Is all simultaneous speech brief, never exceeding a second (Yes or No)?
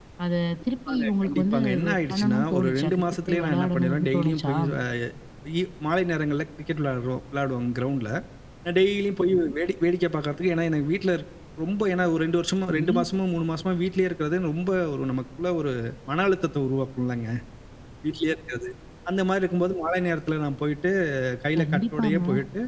No